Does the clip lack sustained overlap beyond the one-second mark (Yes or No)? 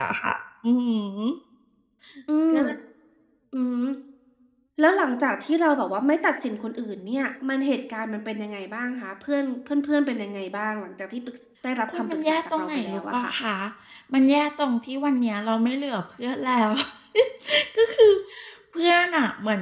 No